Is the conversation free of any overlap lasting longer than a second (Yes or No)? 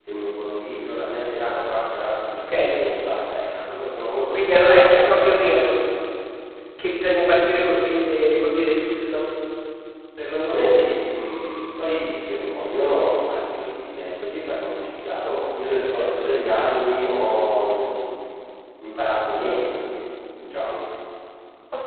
No